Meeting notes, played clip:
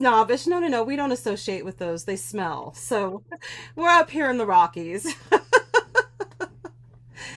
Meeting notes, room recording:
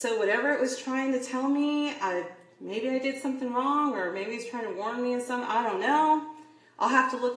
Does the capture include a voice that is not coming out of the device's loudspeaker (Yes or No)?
Yes